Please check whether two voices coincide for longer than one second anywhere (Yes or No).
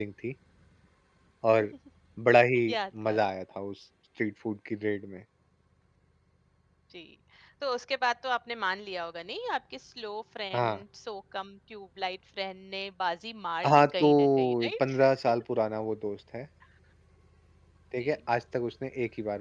Yes